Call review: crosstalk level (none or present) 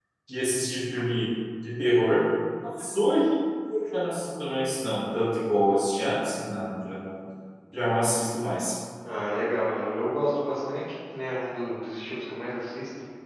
none